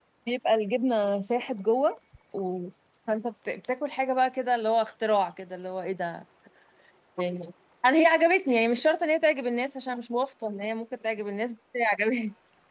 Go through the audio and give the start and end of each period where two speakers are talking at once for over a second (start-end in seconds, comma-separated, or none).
none